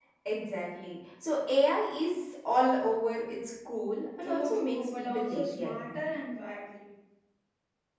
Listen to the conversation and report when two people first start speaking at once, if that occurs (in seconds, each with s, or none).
4.2 s